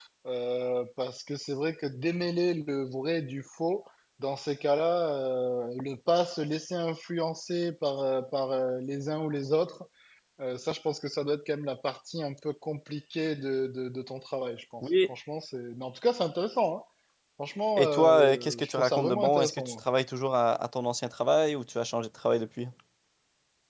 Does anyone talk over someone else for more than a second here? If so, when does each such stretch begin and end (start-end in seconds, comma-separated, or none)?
17.8-19.8